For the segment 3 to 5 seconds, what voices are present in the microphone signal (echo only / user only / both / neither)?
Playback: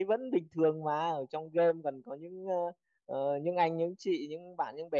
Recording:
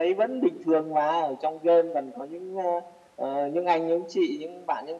echo only